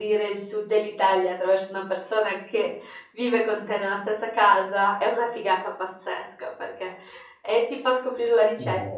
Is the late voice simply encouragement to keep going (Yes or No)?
Yes